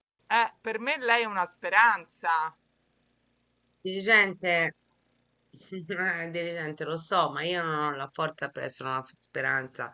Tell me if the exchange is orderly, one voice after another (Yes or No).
Yes